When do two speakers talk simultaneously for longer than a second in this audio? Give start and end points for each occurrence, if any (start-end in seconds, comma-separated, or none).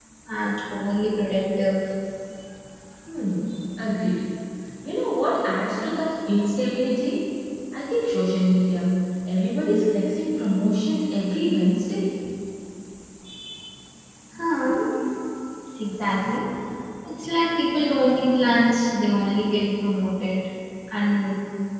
none